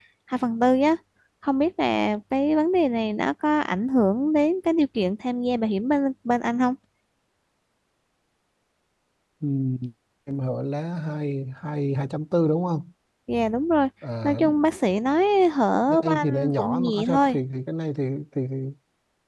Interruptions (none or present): present